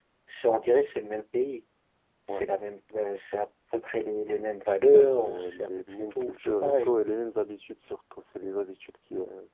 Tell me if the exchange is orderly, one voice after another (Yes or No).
No